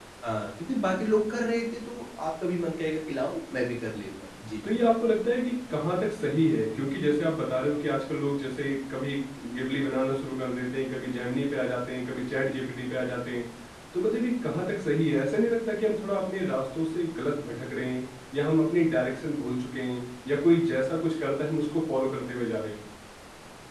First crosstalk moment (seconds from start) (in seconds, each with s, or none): none